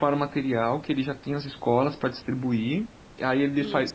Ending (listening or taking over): listening